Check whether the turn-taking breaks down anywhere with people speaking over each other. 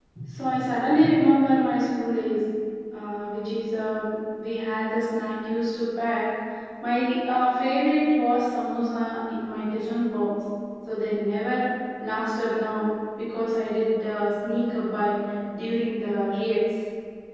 No

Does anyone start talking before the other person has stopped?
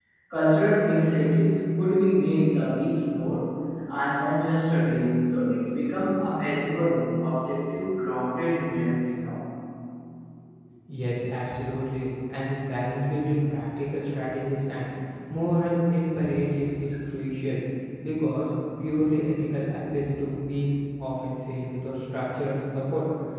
No

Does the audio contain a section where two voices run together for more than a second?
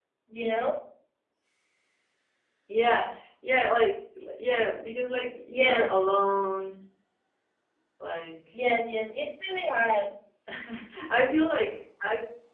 No

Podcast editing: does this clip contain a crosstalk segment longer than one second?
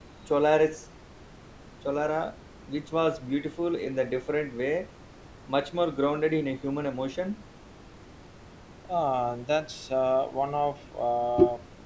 No

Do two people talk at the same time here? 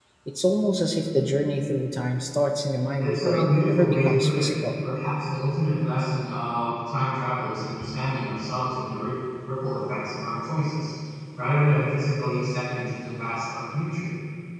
Yes, from 3.0 s

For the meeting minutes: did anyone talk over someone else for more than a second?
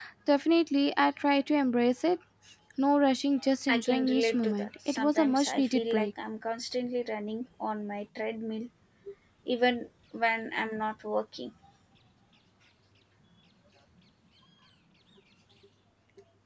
Yes, from 3.7 s

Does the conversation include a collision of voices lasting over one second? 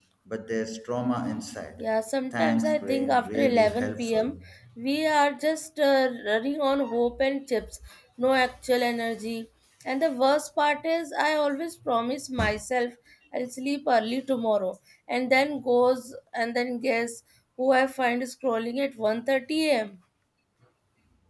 Yes, from 2.3 s

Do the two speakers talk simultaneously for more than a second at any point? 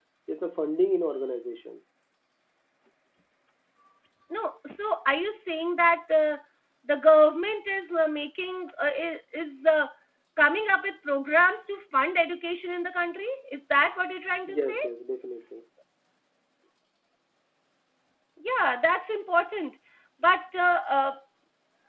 No

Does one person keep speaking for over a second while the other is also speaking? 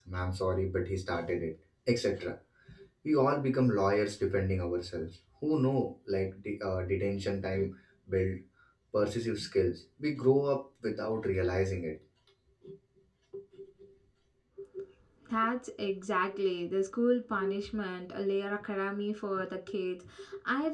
No

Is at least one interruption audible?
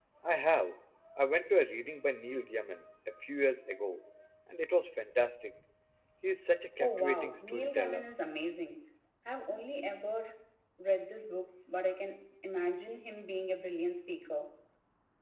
Yes, from 6.8 s

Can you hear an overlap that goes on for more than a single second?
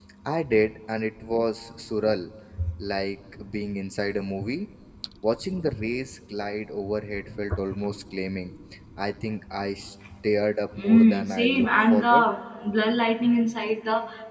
Yes, from 10.8 s

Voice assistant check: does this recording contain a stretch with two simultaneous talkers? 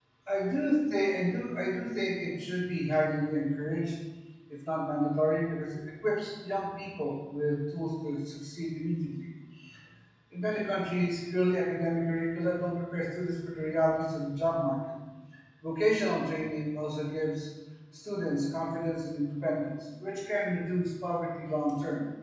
No

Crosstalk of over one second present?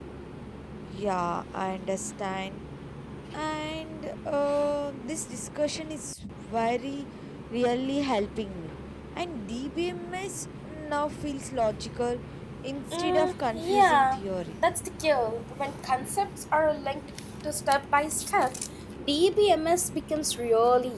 Yes, from 12.9 s

